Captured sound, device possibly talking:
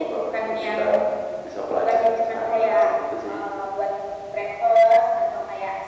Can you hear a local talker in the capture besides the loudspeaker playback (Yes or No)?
No